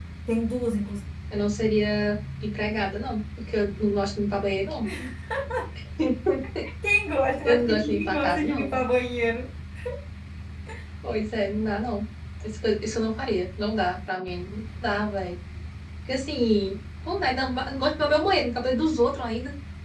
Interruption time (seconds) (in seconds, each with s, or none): 7.4 s